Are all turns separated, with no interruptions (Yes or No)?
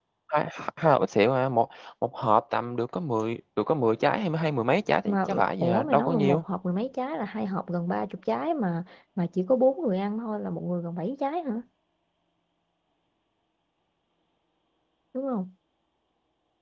No